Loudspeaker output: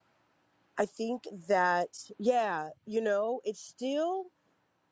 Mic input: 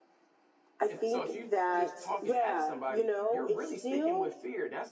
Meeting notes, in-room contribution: present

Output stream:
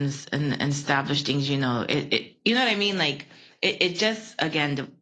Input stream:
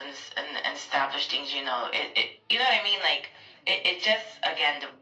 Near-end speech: none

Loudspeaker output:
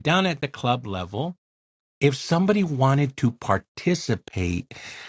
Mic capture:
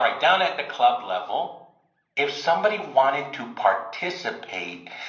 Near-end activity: none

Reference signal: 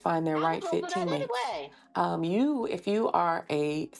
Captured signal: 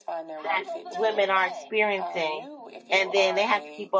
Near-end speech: present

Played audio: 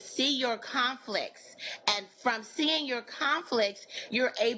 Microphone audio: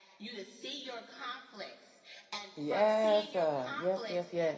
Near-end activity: present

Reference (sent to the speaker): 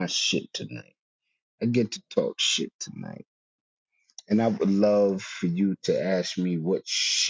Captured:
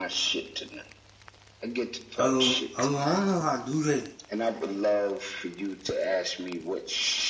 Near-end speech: present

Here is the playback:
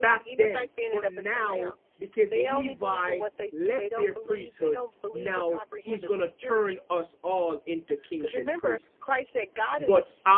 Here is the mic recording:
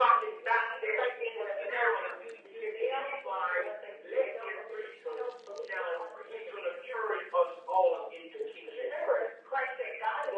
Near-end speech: present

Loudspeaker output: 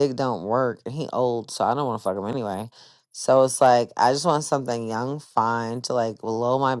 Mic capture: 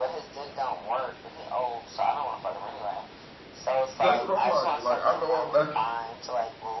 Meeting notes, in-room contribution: present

